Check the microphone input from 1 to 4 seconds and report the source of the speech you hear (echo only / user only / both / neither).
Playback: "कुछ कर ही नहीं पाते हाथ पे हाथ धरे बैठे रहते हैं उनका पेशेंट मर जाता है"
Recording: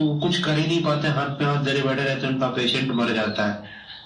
echo only